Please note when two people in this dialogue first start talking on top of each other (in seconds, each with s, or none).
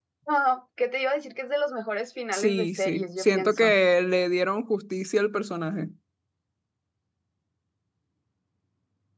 2.3 s